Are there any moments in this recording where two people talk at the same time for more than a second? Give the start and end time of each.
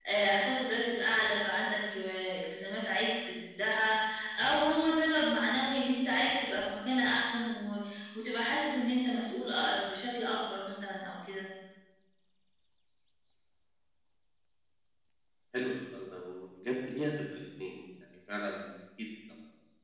none

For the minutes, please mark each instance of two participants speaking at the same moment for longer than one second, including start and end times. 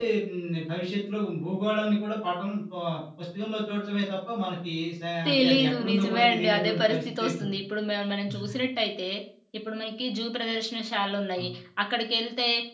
5.3-7.5

